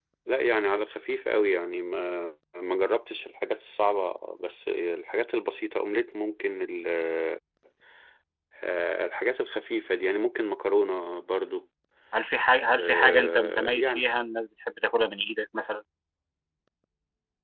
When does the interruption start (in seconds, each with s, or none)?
12.7 s